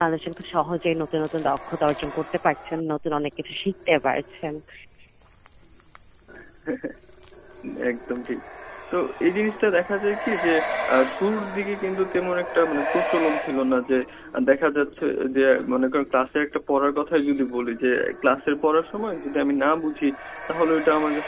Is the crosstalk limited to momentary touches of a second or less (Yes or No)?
Yes